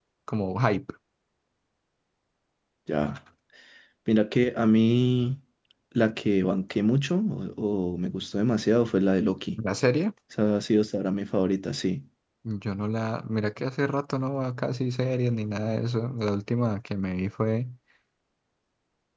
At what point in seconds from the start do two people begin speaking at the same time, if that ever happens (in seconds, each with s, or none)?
none